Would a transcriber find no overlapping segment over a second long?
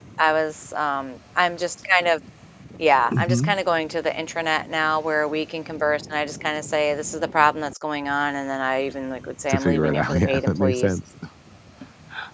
No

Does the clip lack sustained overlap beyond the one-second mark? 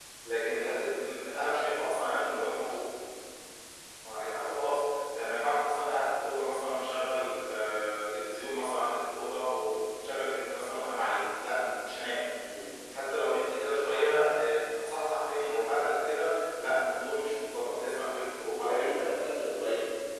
Yes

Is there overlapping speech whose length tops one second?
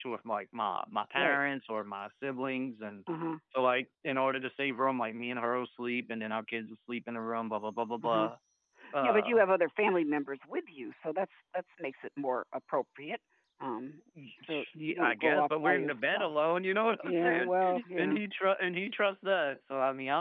Yes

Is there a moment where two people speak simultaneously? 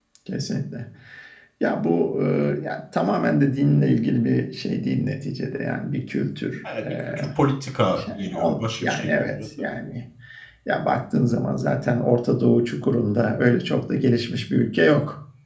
Yes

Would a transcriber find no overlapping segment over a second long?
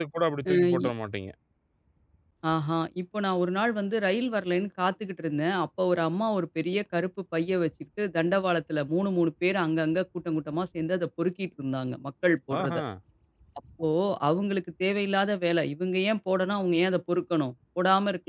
Yes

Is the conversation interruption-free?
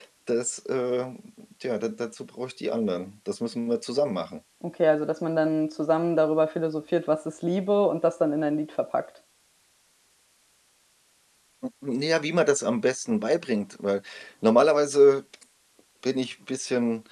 Yes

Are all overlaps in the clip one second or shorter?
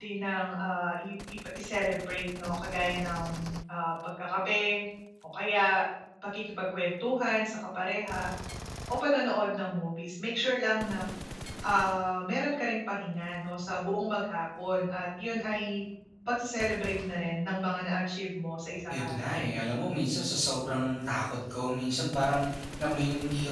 Yes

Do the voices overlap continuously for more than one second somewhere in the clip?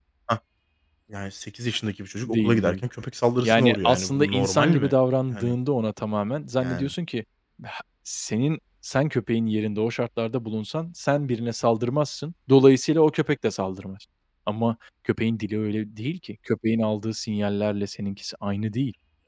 Yes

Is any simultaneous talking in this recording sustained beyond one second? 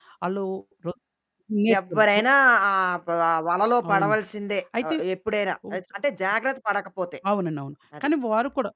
No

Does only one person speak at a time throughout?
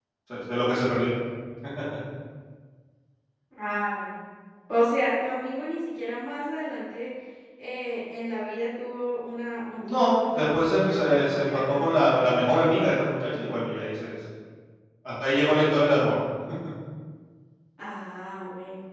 No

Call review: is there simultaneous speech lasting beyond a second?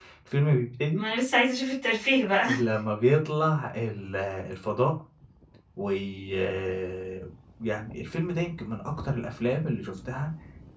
No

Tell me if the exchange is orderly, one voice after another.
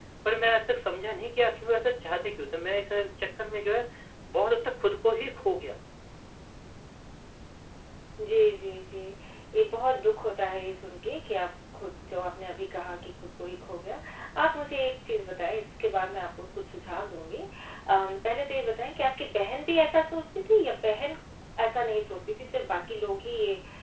Yes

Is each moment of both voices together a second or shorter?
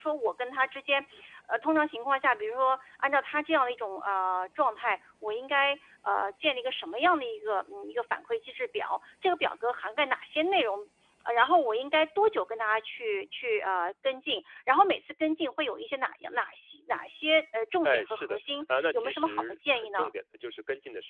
No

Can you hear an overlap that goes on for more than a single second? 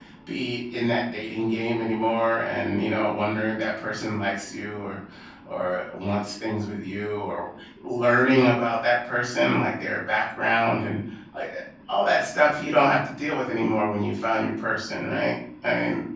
No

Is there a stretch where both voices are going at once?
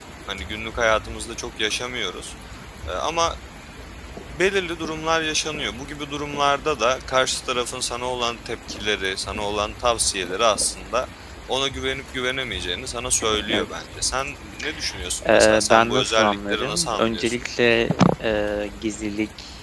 Yes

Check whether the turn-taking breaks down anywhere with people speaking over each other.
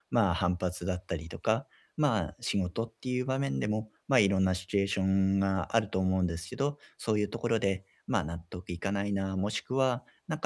No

